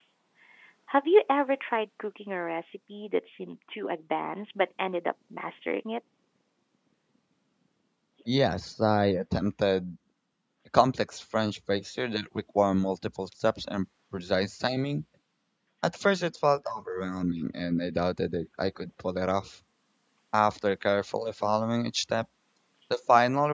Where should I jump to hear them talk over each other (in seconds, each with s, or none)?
none